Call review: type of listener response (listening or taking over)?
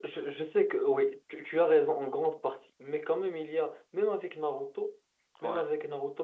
listening